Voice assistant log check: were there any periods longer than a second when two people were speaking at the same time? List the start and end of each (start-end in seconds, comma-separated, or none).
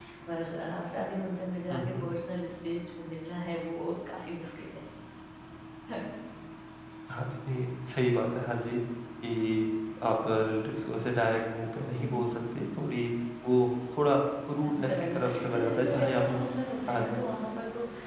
14.8-16.4